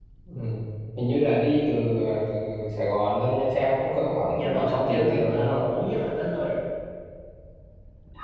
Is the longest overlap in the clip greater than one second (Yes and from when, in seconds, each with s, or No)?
Yes, from 4.3 s